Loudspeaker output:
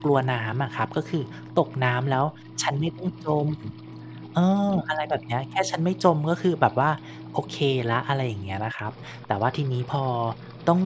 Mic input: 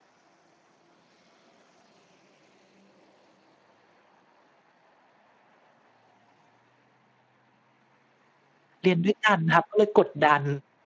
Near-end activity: present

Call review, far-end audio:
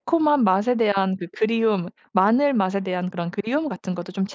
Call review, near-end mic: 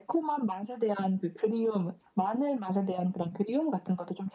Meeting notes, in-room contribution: none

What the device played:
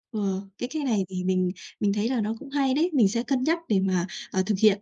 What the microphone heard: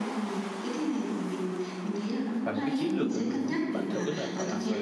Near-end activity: present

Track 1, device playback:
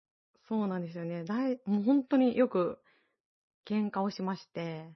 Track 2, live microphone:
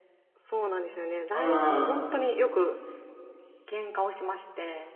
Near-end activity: present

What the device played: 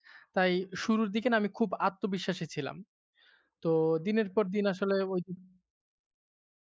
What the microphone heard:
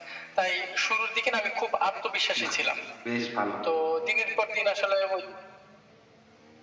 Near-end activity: present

